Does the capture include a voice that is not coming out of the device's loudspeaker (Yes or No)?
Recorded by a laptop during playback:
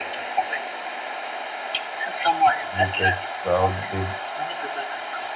Yes